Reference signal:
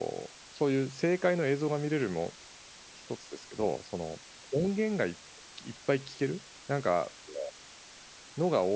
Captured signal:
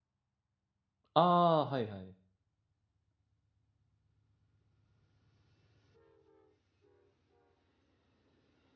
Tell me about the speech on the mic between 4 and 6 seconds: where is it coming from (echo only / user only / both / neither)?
neither